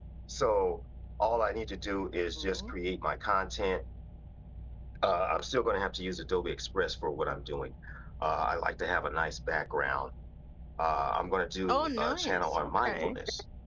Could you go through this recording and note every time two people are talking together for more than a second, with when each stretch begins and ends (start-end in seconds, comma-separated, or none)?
11.7-13.2